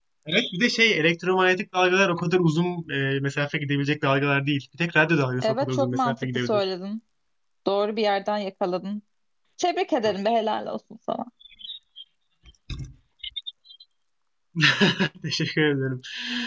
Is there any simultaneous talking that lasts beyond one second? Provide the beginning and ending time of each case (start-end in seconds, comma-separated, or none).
5.4-6.7